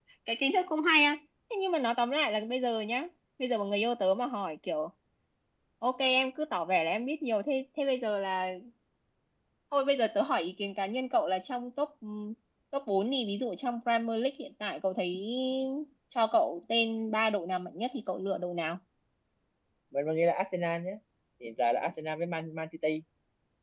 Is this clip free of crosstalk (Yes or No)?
Yes